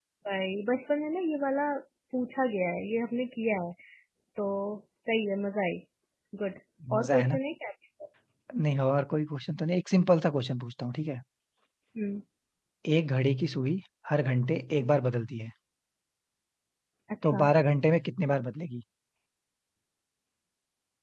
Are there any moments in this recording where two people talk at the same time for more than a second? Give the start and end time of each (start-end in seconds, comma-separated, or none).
none